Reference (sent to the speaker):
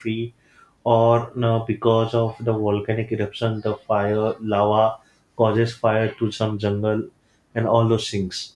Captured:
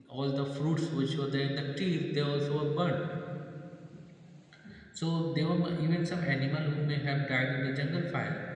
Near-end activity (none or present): present